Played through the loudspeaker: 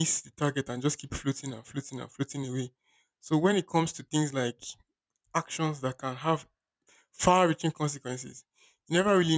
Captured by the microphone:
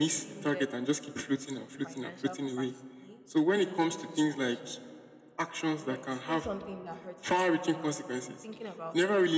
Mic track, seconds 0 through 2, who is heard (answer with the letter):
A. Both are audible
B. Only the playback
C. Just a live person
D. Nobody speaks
A